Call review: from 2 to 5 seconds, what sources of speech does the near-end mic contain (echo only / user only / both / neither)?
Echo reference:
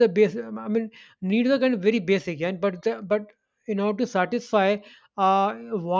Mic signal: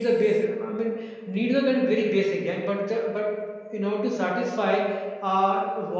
echo only